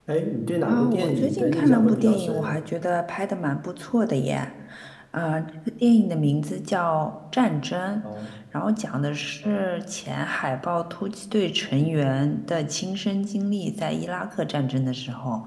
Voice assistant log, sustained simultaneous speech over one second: present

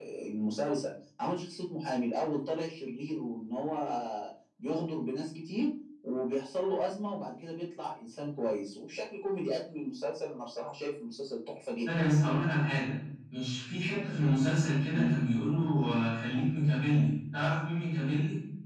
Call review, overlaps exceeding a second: none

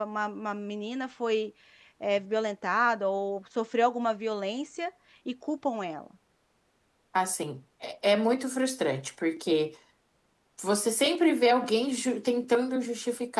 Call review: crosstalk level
none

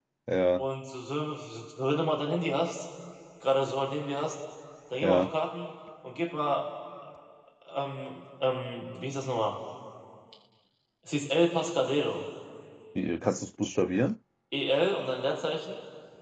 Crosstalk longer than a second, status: none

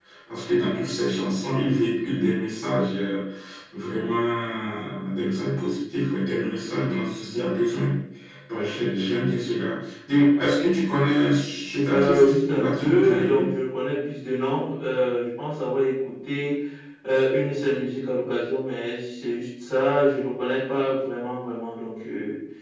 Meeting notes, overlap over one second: present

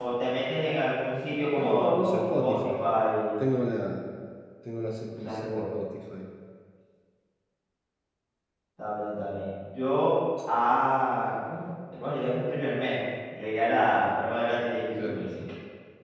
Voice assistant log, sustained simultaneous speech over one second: present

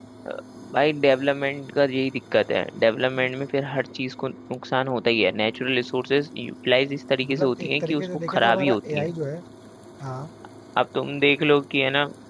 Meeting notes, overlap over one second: present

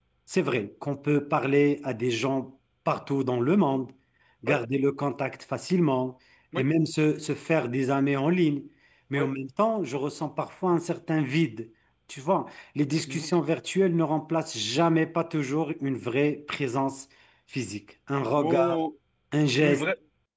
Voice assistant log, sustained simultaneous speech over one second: none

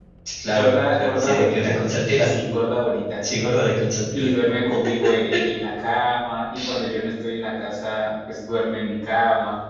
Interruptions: present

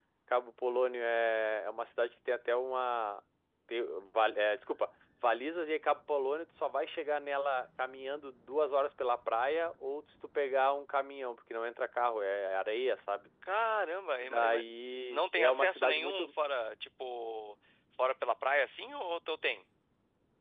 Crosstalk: present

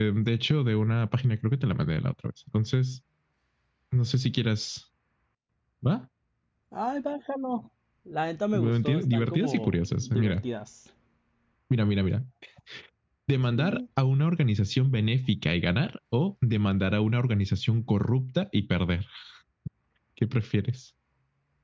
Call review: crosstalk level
present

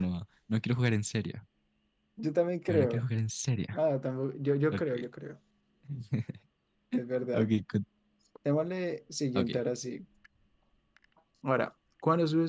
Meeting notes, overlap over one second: none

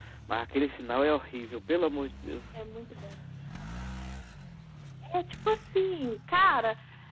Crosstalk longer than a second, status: none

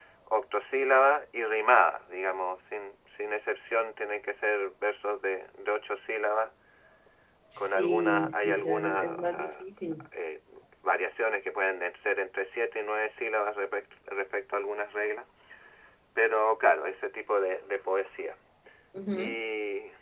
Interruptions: present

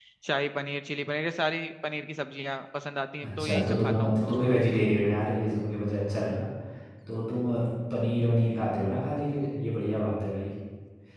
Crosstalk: present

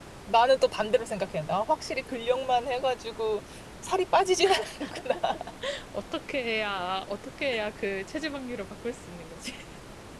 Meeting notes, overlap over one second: none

